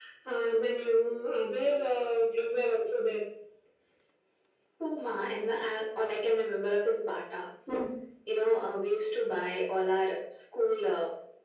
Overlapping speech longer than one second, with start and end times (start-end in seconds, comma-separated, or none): none